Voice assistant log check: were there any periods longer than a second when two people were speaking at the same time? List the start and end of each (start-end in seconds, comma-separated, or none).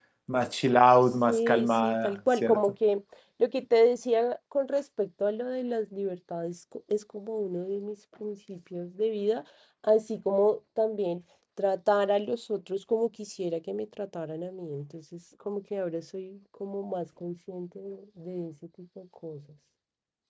1.3-2.6